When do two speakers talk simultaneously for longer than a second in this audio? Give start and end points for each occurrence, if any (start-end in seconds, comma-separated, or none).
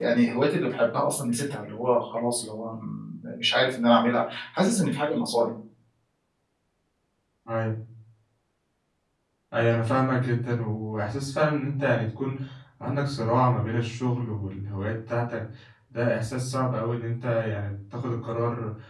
none